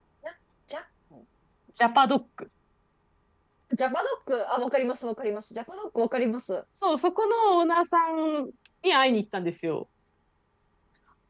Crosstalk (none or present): none